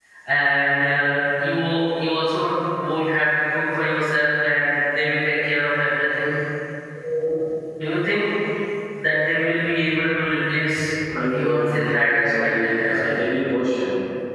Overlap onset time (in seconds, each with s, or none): 11.1 s